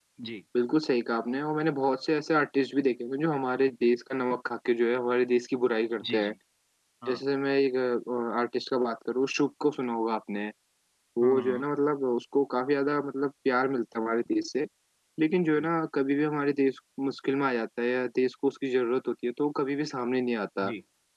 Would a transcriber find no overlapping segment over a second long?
Yes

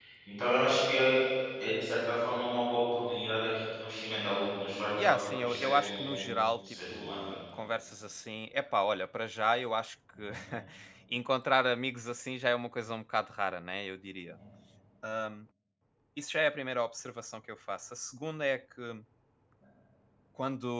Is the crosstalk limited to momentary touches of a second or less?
No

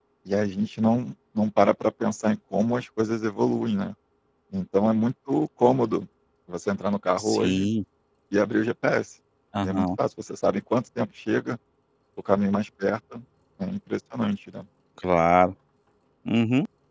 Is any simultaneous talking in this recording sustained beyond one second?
No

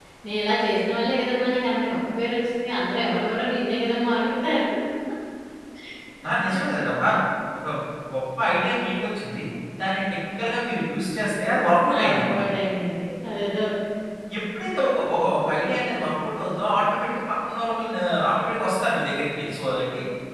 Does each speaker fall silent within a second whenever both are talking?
Yes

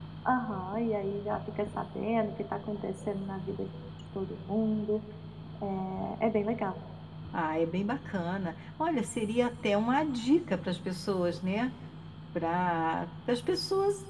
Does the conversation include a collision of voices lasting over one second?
No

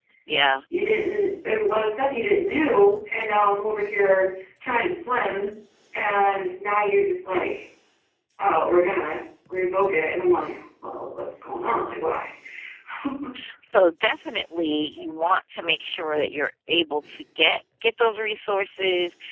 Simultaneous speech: No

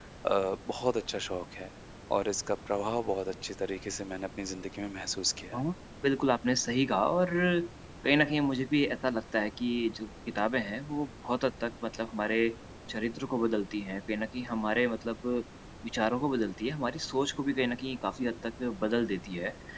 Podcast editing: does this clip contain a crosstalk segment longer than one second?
No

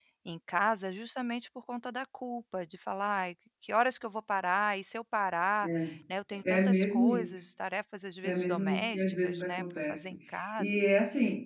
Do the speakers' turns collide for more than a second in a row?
Yes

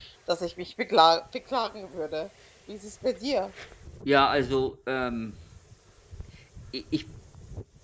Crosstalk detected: No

